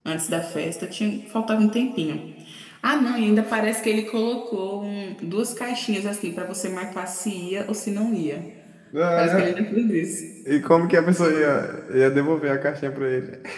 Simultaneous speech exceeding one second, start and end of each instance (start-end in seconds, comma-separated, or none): none